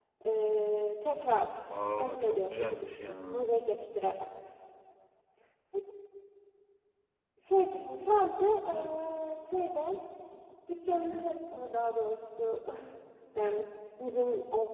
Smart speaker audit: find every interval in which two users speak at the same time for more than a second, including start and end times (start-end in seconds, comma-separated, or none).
2.0-3.4